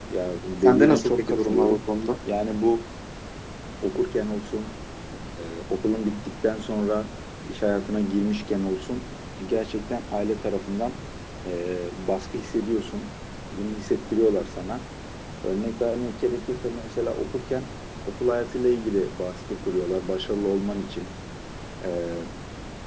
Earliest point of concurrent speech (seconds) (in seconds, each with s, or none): 0.6 s